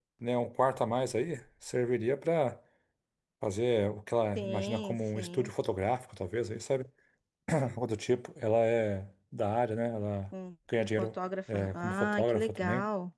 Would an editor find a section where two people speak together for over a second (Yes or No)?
Yes